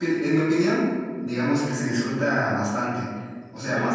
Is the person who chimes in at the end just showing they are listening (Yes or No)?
Yes